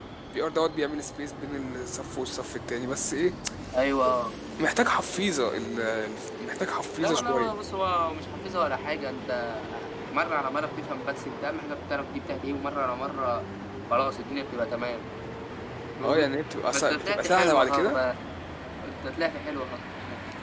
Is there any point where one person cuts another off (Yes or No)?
Yes